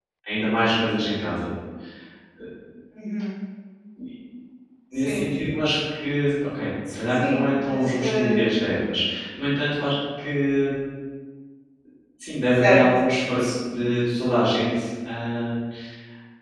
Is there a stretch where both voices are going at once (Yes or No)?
Yes